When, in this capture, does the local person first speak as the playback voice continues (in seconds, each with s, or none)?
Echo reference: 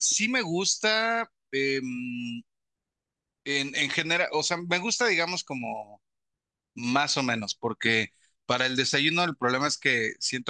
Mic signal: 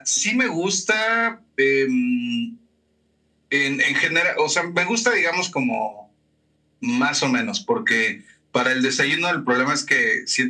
none